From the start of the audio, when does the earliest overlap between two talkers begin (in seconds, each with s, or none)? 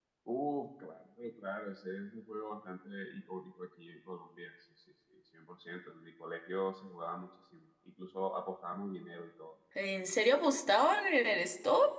none